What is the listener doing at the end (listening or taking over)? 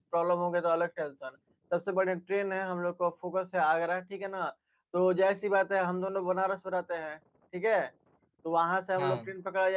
listening